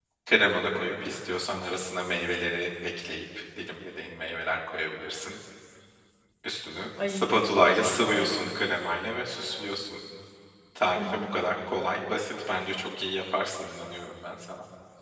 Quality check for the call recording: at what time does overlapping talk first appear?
7.0 s

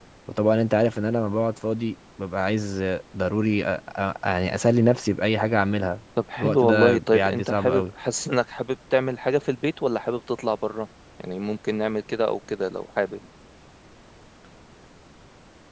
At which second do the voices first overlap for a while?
6.3 s

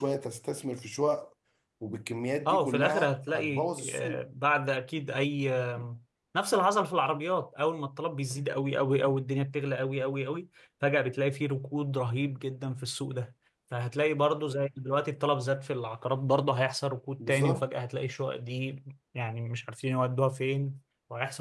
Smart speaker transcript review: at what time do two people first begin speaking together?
2.5 s

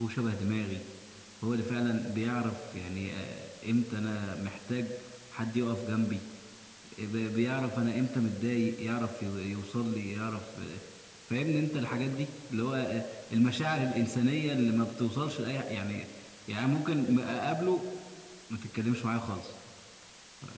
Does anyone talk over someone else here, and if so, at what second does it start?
none

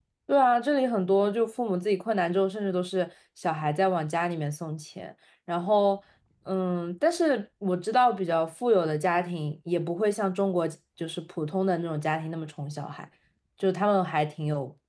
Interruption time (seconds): none

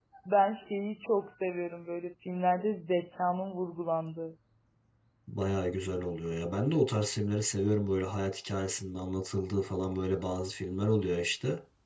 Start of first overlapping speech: none

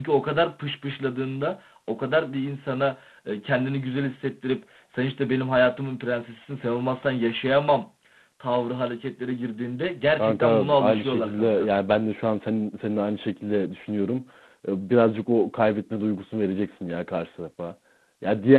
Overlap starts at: 10.2 s

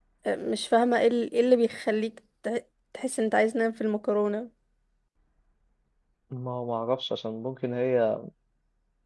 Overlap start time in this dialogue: none

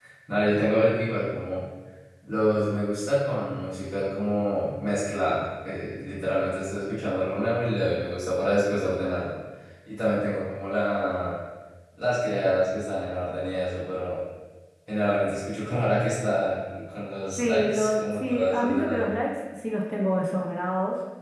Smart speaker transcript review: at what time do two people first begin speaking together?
17.4 s

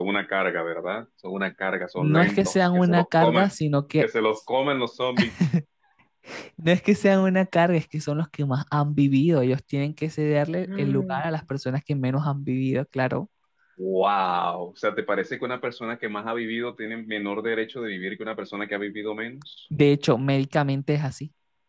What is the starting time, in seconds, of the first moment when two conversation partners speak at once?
1.9 s

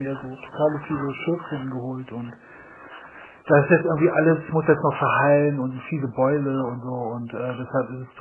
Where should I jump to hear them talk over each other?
none

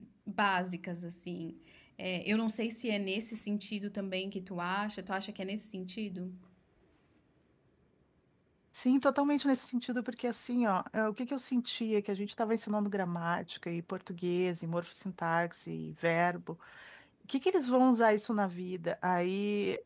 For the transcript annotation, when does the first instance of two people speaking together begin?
none

